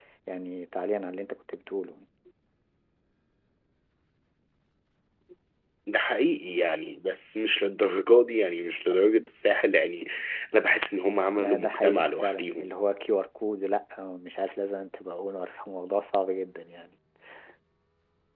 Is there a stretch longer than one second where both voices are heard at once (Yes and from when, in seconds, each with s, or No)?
Yes, from 11.4 s